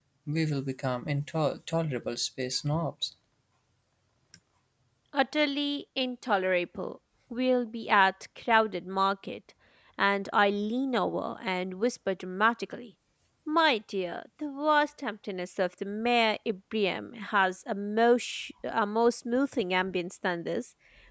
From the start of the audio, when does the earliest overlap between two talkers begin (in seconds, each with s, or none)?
none